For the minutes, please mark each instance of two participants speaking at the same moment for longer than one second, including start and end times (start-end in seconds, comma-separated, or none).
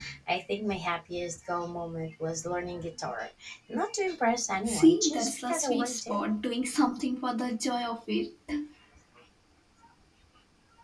4.7-6.3